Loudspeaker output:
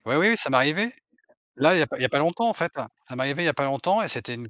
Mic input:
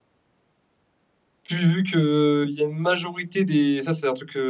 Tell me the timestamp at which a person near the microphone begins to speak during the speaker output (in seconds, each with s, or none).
1.5 s